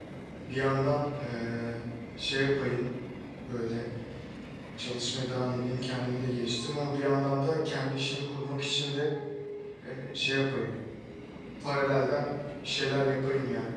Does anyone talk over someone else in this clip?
No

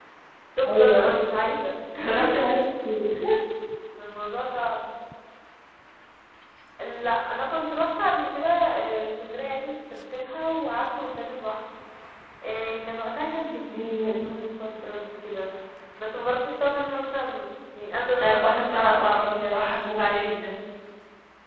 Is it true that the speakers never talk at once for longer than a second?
No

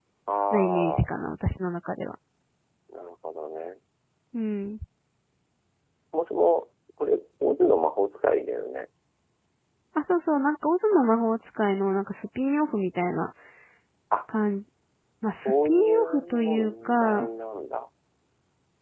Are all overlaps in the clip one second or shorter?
No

